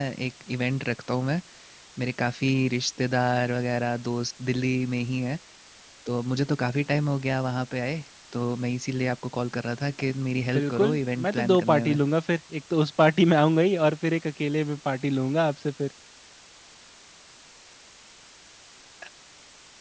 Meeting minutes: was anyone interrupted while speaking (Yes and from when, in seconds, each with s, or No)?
Yes, from 10.5 s